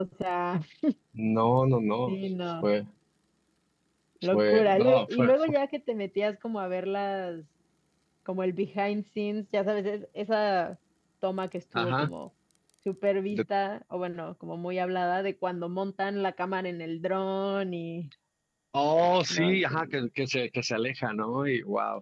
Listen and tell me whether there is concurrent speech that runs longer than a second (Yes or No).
Yes